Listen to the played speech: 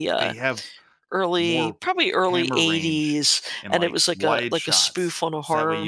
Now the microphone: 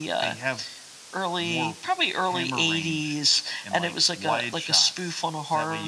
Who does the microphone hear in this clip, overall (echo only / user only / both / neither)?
echo only